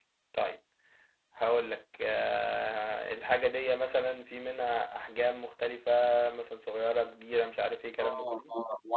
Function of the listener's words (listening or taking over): taking over